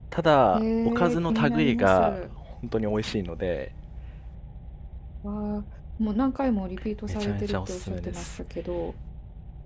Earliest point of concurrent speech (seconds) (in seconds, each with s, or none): 0.5 s